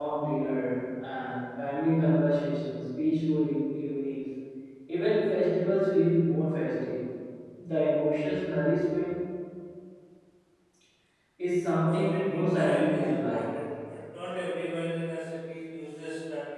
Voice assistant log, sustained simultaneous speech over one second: present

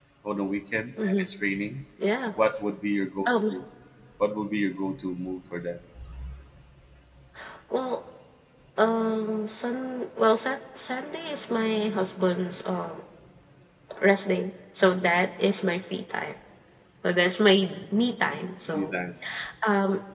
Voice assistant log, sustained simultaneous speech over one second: none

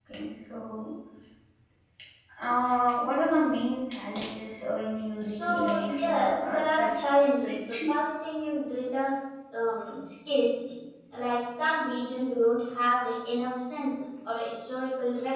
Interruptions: present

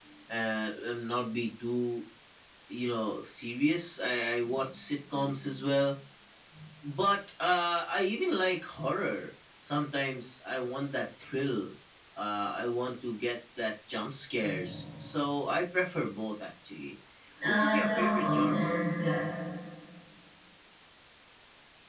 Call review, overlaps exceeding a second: present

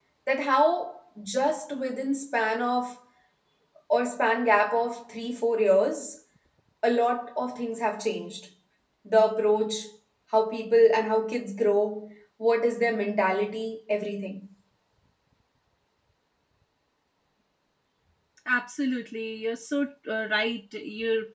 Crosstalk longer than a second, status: none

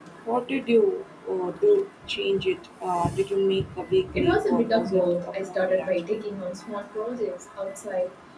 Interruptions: present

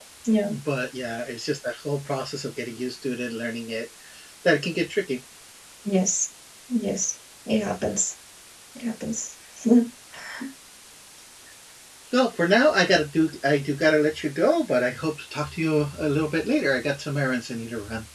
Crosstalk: none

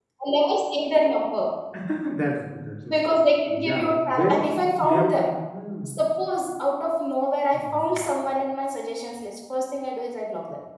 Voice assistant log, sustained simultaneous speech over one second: present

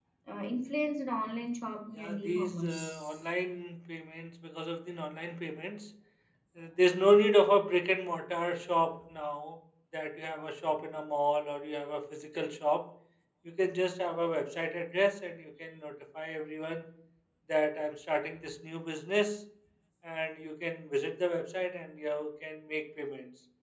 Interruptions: present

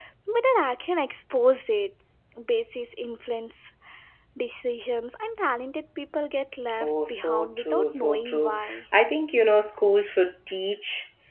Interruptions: present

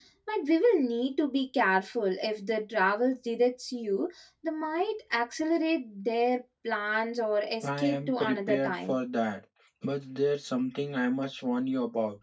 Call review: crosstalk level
present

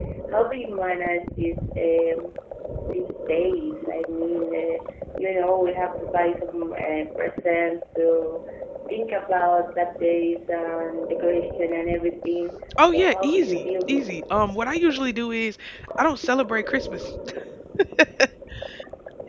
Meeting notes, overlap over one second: present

